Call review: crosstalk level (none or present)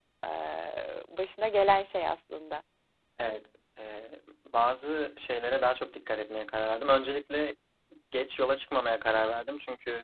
none